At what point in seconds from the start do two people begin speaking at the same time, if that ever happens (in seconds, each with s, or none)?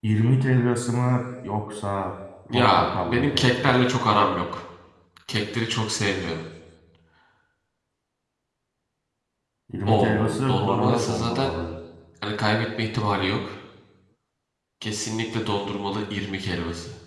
2.5 s